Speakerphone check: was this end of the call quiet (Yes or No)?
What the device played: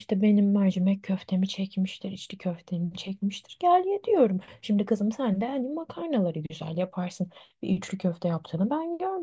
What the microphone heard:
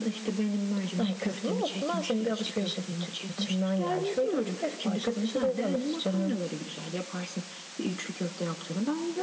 No